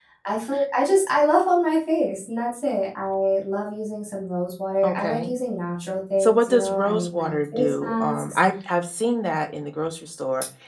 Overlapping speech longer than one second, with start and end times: 6.2-8.4

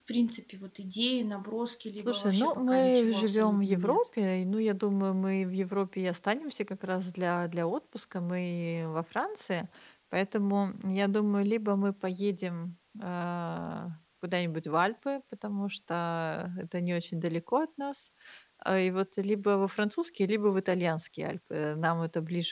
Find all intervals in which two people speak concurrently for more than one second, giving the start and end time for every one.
2.0-4.0

